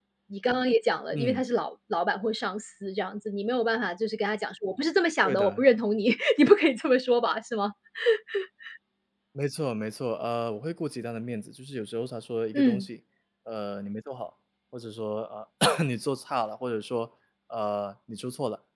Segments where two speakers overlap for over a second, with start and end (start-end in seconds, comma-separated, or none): none